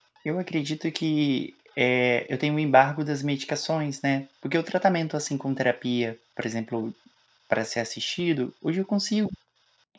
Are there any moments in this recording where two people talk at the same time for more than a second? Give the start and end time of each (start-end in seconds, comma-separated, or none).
none